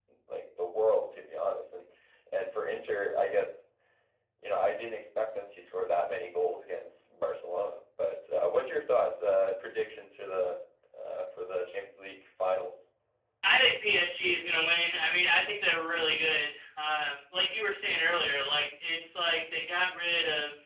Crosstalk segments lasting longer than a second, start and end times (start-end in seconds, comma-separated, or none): none